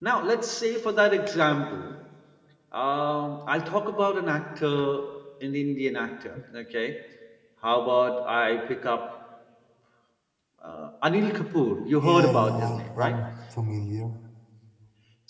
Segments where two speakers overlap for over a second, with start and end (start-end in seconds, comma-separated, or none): 11.9-13.2